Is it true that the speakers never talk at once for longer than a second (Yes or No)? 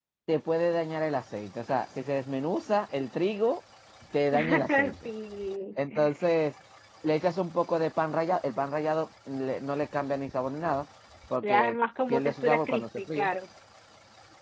No